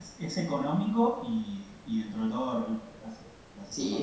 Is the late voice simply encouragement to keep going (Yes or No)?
No